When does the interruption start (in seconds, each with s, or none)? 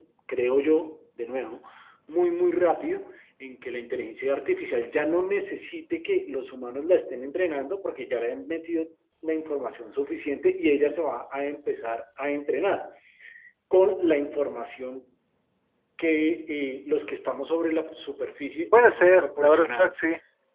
18.7 s